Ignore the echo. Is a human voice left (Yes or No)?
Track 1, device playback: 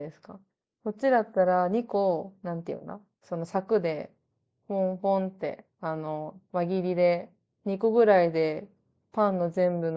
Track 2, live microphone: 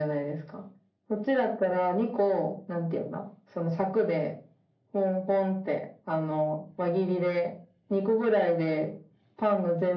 No